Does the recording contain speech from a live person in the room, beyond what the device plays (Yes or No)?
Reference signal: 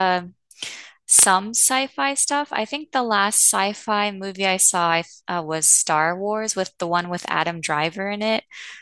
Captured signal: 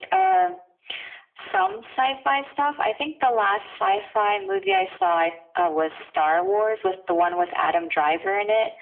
No